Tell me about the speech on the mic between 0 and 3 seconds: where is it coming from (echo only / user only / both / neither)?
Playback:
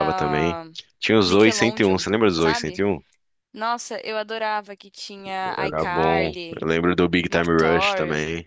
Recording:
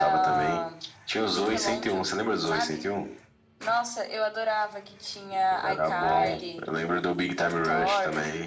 echo only